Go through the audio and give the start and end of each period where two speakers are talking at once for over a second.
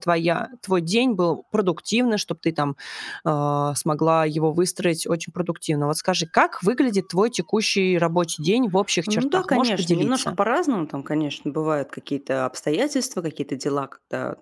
9.1-10.4

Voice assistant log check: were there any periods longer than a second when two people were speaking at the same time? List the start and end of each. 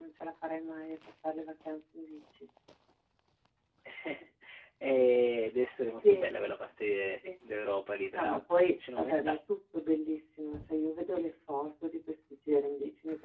8.2-9.4

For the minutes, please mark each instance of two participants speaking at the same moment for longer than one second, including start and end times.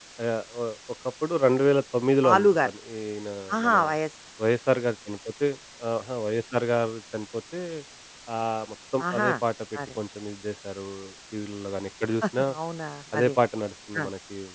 none

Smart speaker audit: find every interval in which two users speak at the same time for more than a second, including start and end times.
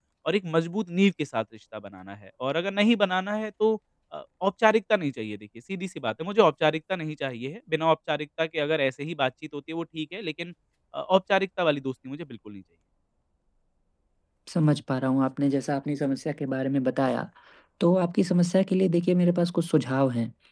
none

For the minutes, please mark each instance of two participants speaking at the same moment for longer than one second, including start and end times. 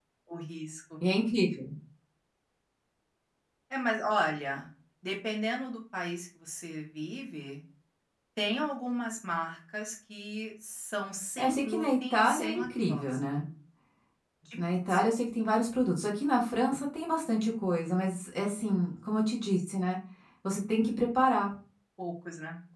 11.4-13.2

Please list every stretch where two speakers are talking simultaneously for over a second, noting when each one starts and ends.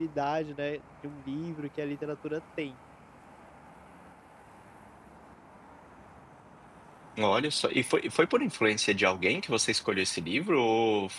none

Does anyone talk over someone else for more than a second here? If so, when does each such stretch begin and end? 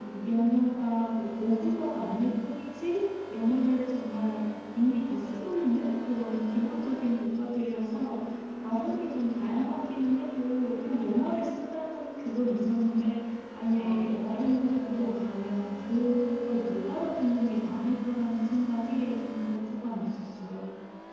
13.8-15.3

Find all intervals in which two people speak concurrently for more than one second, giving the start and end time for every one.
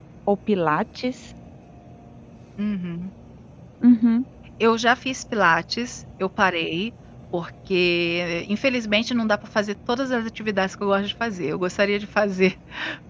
none

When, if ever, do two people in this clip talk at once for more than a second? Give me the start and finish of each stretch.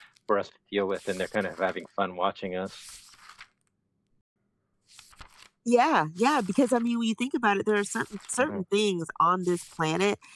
none

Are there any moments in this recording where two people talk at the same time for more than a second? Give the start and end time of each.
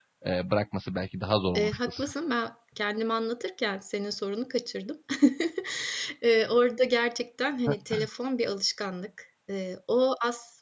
none

